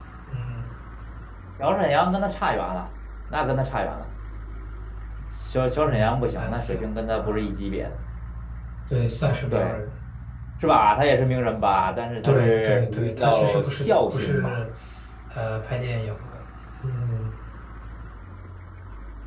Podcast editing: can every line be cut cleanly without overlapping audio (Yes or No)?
No